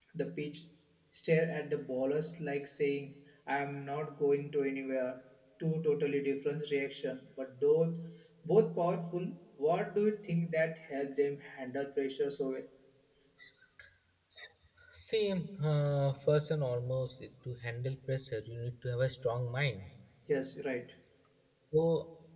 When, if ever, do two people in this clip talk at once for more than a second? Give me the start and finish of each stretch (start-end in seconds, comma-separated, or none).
none